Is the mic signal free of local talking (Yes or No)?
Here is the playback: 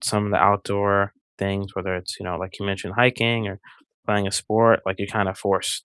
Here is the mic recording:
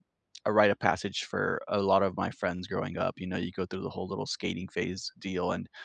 No